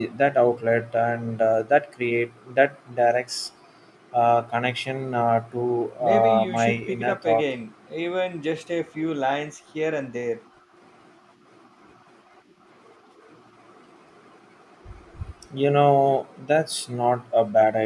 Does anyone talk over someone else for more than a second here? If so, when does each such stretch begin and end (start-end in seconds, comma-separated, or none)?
6.0-7.4